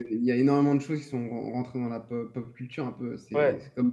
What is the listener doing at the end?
taking over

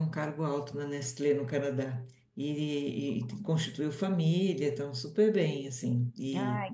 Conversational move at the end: listening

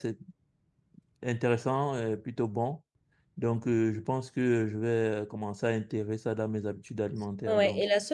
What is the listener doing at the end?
taking over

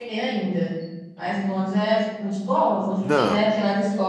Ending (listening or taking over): listening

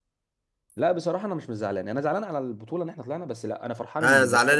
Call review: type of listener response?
taking over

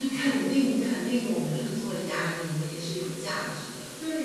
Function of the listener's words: taking over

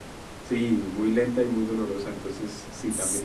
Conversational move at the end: listening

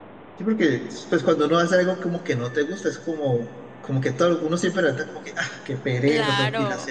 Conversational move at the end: taking over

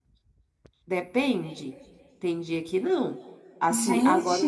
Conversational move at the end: listening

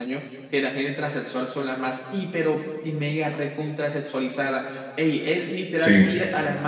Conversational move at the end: listening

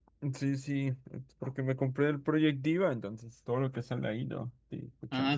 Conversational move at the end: taking over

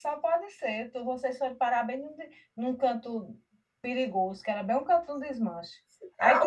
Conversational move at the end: taking over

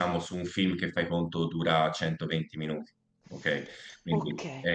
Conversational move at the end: taking over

